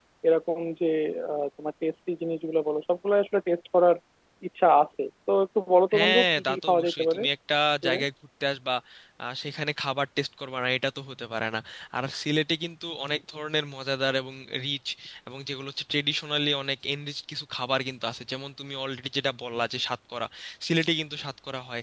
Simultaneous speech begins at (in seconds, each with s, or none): 5.9 s